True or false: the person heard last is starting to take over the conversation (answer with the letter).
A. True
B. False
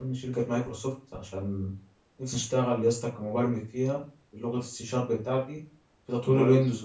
B